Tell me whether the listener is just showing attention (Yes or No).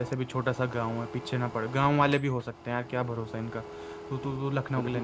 No